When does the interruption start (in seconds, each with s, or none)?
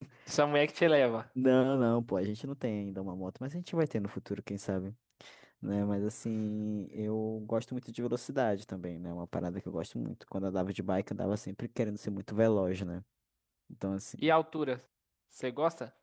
none